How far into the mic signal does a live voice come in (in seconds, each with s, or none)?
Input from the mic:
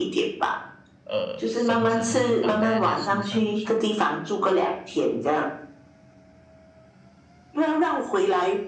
1.0 s